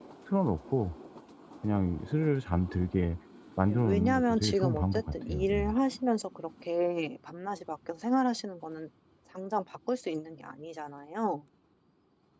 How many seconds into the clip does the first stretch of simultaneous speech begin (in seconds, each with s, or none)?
3.7 s